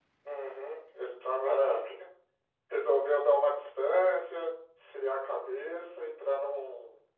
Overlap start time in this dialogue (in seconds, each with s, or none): none